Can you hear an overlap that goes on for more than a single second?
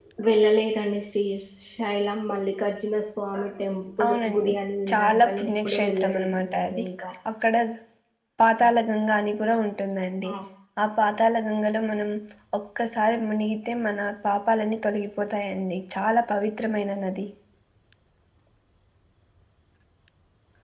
Yes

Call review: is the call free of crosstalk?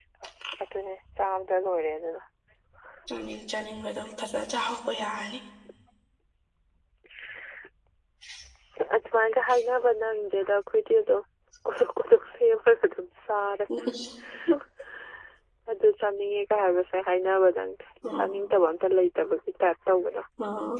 Yes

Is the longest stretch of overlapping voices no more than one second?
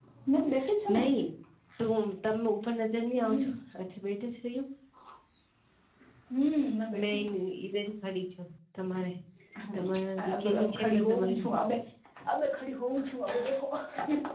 No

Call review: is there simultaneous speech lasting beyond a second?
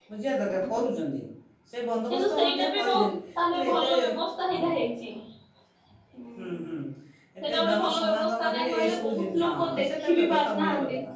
Yes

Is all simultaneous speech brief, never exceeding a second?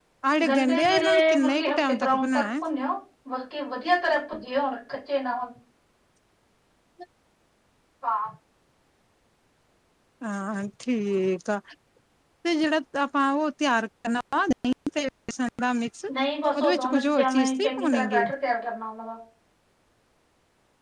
No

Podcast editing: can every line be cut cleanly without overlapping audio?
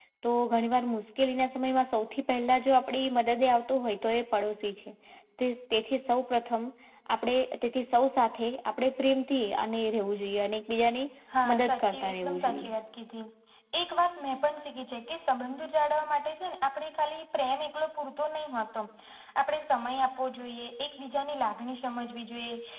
No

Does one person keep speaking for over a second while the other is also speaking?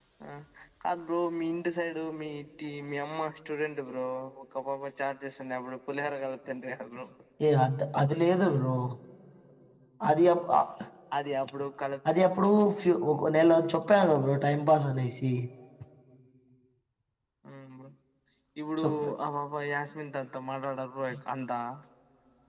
No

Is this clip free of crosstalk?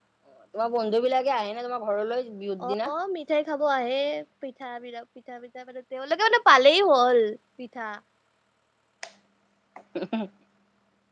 Yes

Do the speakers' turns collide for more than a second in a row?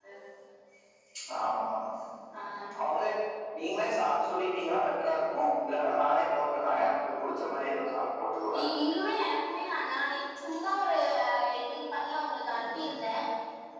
No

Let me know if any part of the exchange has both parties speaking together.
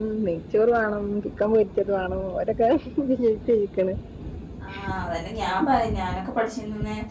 No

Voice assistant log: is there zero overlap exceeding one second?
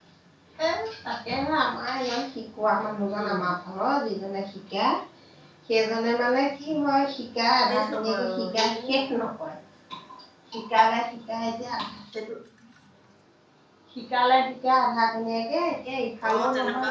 No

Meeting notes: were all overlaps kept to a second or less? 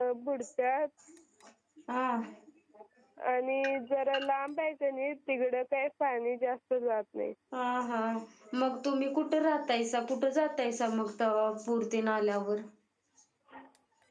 Yes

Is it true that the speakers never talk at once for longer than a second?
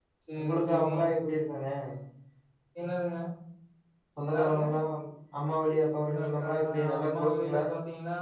No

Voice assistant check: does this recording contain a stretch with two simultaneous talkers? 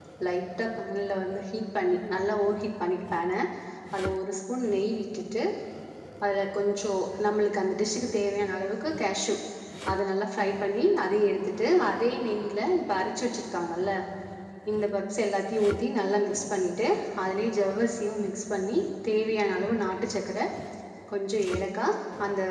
No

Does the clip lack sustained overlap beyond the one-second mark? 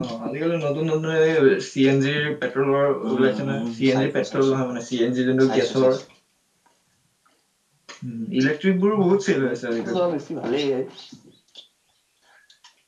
No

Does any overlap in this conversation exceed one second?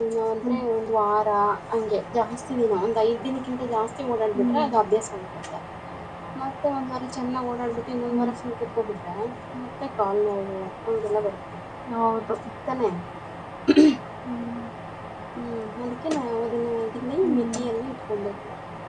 No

